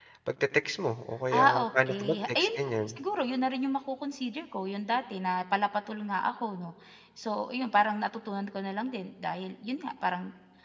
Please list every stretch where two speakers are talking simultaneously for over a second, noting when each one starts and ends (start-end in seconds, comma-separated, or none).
1.3-2.9